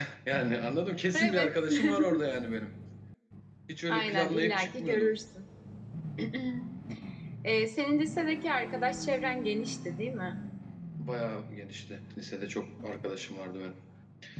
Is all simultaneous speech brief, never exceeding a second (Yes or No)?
No